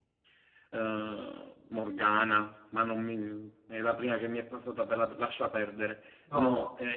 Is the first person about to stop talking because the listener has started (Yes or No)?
No